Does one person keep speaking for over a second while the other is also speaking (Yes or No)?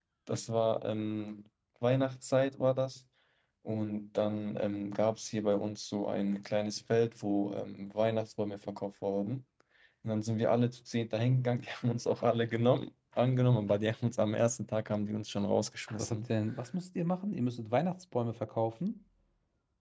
No